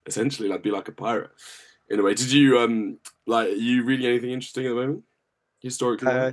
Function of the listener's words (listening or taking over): taking over